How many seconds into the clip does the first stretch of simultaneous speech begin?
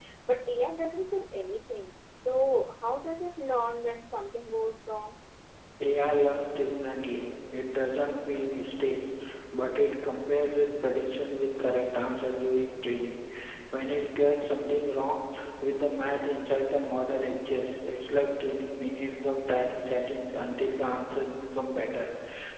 none

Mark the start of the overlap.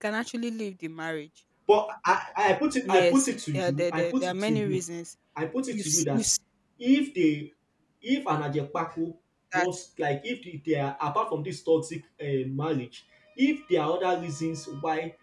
2.8 s

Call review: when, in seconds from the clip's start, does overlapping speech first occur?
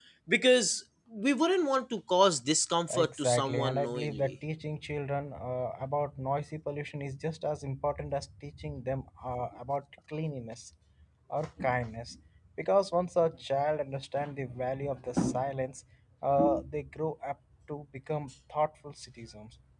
2.9 s

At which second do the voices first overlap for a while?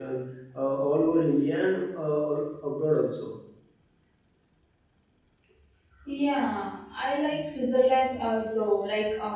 none

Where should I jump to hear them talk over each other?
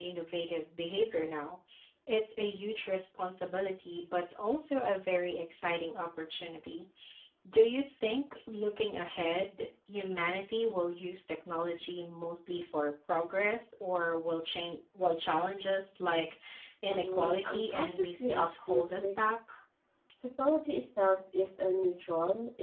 16.9 s

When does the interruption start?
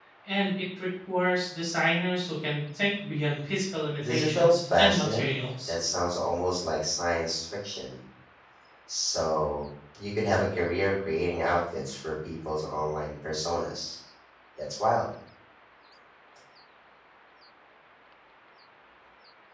4.0 s

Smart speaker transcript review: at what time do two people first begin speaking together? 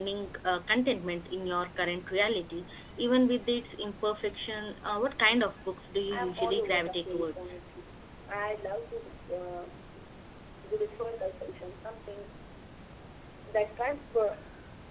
6.1 s

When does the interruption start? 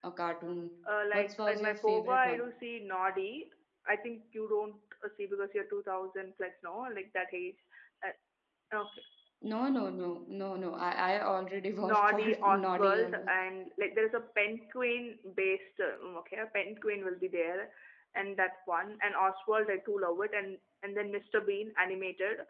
1.1 s

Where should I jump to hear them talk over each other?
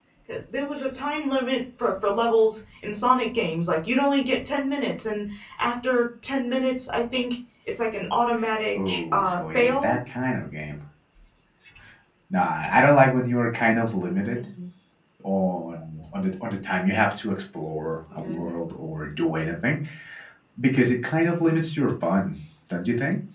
8.7 s

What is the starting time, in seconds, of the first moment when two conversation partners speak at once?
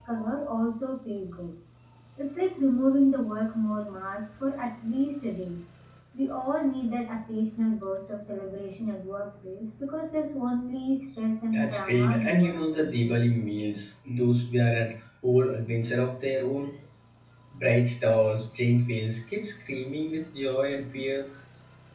11.5 s

